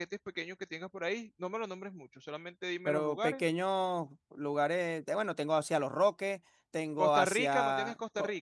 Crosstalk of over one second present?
Yes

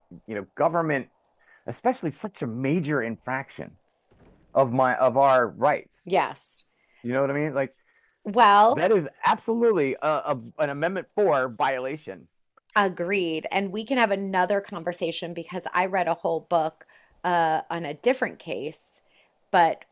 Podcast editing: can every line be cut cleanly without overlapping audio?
Yes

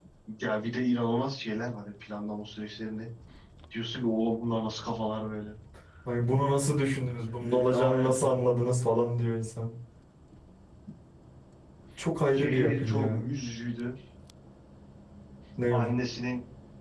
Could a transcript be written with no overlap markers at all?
No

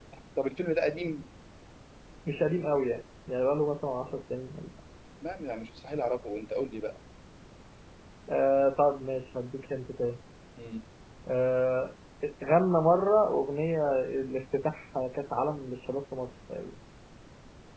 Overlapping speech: No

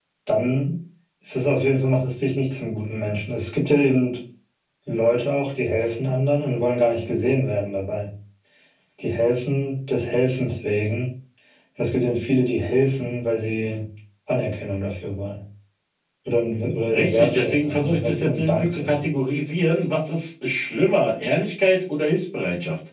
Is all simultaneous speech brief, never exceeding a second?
No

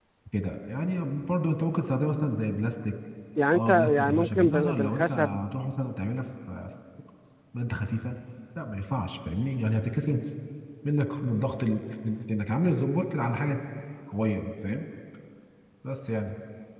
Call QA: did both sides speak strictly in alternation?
No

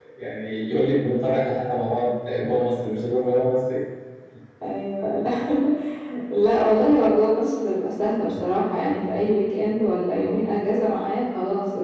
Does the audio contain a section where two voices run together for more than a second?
No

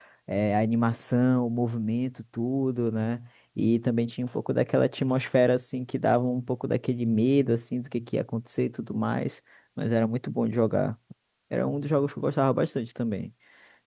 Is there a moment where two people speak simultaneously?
No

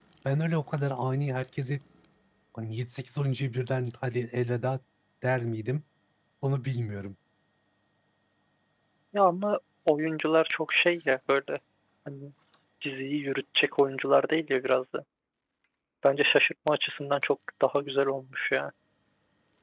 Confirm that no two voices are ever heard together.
Yes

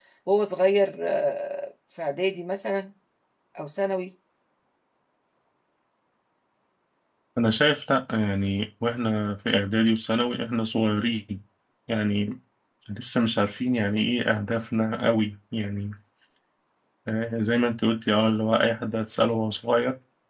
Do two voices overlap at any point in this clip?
No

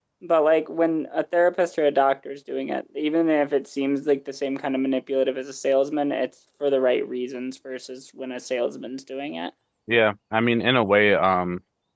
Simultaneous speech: No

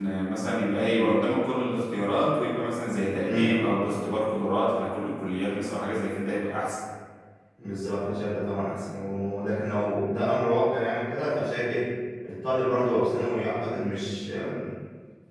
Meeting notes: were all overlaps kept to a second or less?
Yes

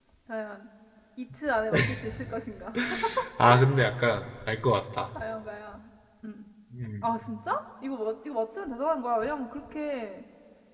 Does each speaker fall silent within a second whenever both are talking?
Yes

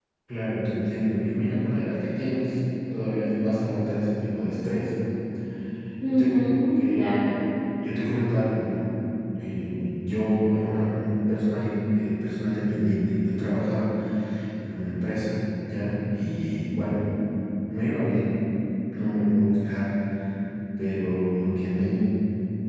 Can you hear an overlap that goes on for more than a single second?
Yes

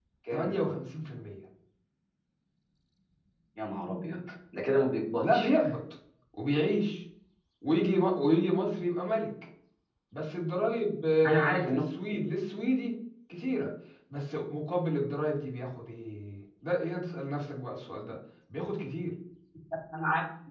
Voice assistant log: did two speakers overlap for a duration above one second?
No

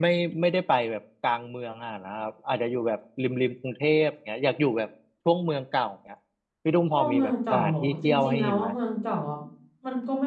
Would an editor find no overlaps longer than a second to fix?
No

